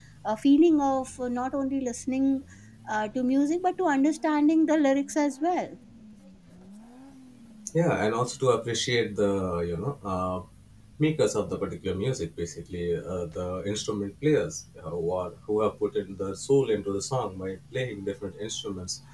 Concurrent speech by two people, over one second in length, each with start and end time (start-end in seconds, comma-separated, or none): none